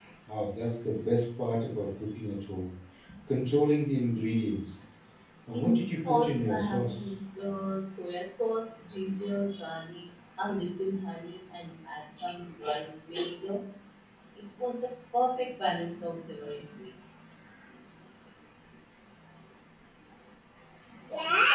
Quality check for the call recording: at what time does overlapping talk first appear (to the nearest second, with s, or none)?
6 s